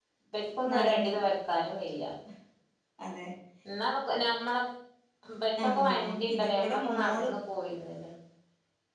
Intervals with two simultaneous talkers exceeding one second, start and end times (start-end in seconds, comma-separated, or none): 5.6-7.3